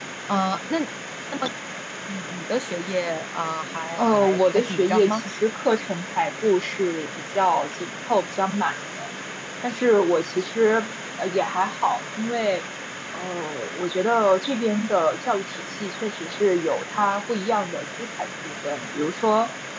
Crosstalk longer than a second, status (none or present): present